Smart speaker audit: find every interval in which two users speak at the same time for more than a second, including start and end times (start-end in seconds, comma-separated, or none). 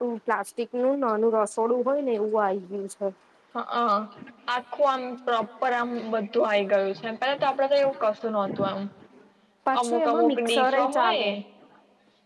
9.8-11.3